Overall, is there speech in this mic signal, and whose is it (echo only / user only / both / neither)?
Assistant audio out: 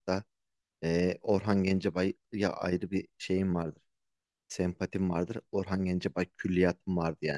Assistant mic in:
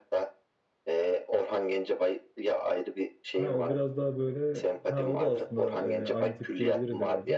both